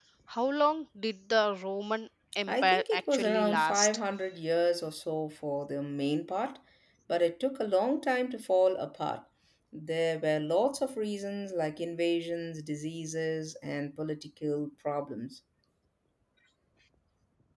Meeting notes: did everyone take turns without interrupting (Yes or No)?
No